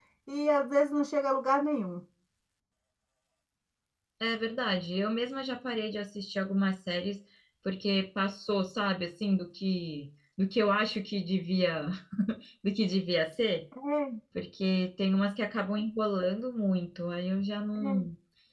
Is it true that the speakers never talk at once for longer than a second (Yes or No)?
Yes